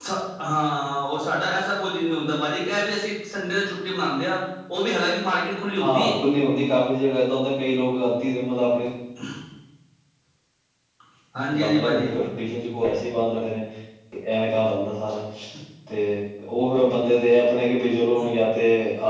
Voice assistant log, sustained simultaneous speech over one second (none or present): none